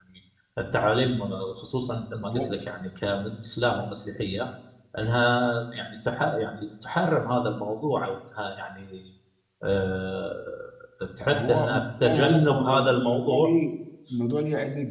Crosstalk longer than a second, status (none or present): present